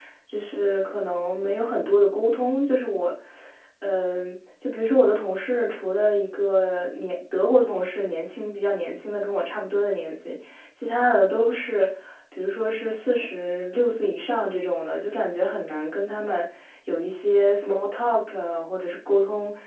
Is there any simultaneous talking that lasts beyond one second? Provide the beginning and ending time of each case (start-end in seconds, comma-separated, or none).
none